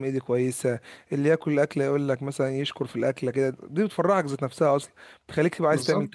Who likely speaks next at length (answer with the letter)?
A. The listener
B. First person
B